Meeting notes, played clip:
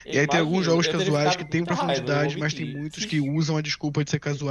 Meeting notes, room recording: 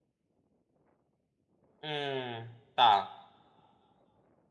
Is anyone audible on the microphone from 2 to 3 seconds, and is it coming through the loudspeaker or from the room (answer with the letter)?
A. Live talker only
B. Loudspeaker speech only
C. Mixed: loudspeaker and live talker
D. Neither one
A